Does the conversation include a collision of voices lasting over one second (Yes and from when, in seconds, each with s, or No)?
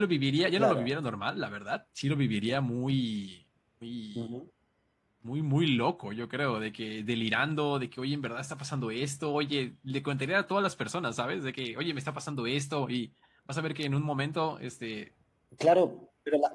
No